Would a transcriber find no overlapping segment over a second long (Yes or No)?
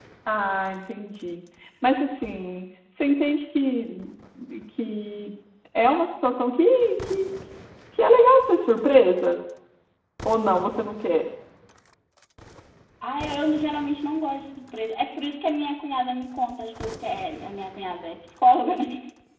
Yes